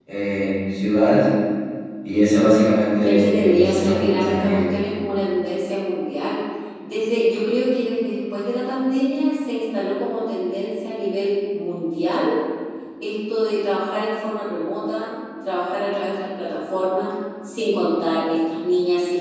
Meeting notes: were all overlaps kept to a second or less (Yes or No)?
No